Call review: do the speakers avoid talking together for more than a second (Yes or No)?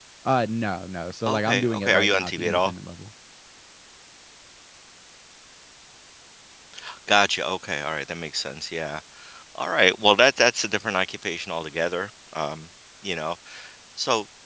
No